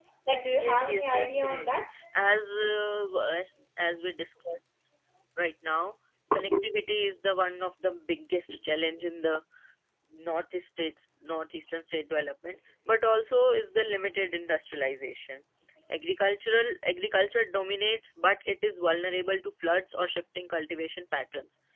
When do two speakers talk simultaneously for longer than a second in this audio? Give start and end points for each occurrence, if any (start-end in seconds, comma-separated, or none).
0.5-1.8